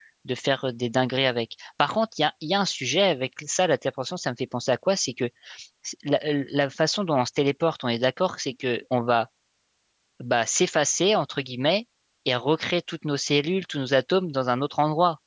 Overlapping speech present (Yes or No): No